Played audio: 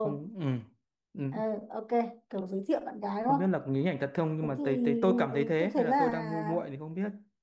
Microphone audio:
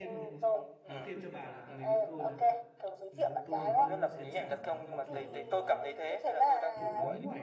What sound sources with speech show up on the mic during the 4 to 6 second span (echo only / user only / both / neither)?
both